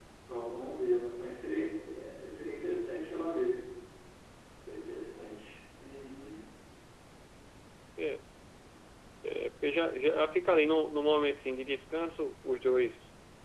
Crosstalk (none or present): none